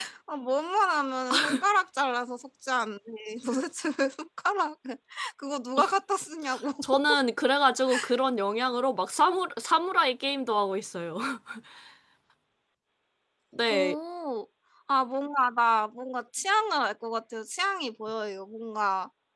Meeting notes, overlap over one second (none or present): none